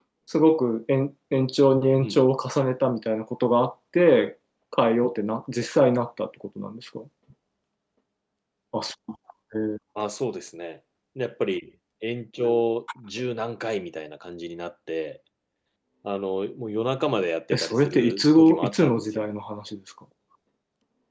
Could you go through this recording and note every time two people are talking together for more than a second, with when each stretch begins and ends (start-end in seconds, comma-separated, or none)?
17.5-19.3